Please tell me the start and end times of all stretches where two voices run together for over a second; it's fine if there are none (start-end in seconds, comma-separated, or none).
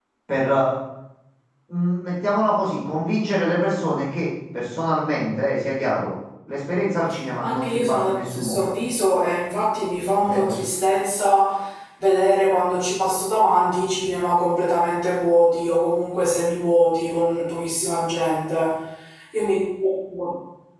7.4-8.7